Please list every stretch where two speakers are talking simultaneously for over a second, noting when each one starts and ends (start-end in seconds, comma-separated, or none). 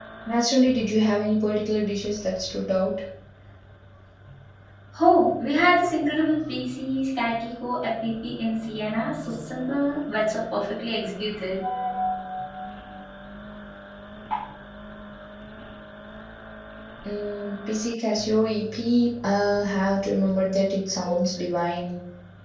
none